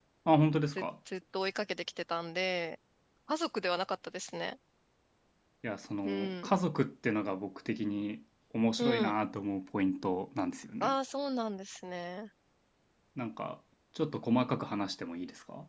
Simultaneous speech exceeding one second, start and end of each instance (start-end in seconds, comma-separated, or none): none